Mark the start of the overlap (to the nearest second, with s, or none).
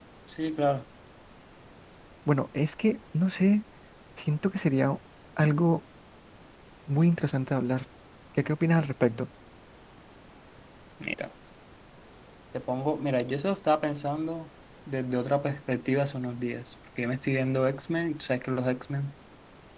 none